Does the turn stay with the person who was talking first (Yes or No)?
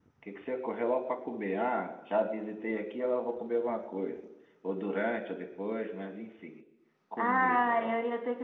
No